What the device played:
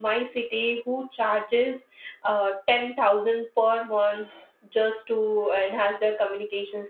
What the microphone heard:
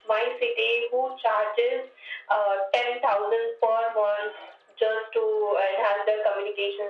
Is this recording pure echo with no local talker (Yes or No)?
Yes